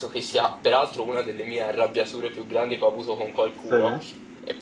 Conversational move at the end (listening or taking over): listening